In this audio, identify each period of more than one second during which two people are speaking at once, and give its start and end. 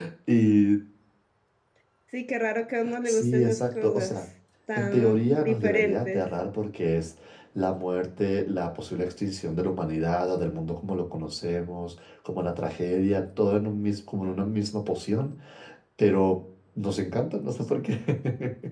3.0-4.2, 4.8-6.3

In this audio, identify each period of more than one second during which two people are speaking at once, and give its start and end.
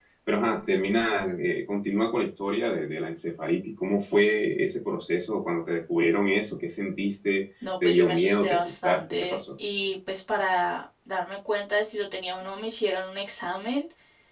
7.8-9.4

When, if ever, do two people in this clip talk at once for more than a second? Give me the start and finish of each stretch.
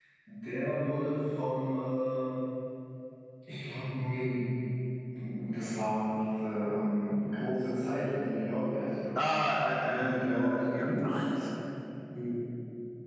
9.8-11.3

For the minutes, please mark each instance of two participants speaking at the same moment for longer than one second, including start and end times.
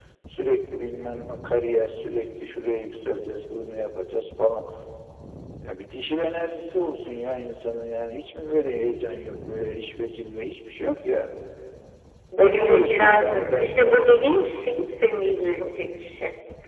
12.4-14.2

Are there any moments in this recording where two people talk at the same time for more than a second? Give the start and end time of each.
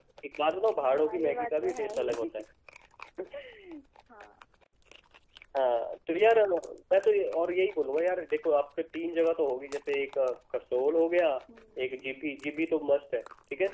0.8-2.4

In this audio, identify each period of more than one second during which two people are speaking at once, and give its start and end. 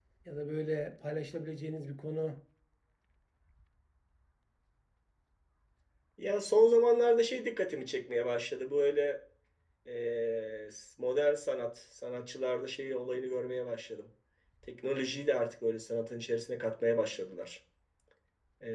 none

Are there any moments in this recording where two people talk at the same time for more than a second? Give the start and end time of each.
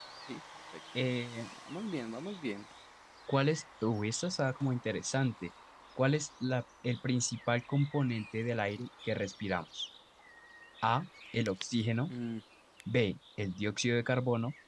none

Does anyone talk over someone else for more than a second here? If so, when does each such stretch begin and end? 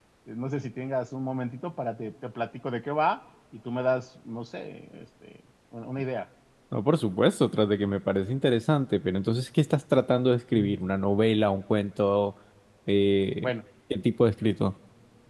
none

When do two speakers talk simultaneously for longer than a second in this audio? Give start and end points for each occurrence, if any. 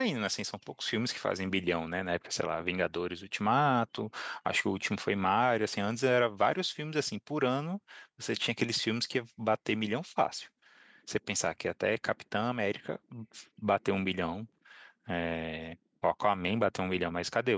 none

